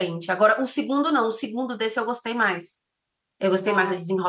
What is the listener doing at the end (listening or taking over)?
listening